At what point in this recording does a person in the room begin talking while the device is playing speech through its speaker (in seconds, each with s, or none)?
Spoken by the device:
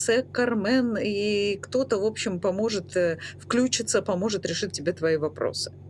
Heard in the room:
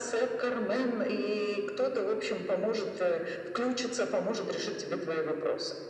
none